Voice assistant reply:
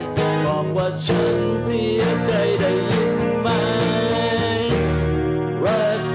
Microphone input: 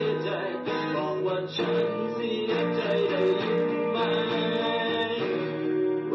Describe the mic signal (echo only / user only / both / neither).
echo only